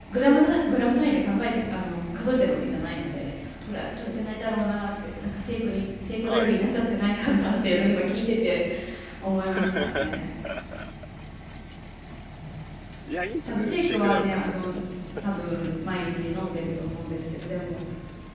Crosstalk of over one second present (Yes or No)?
Yes